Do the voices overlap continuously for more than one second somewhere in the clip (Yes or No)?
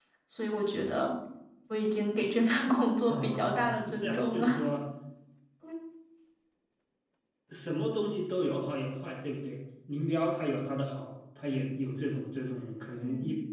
Yes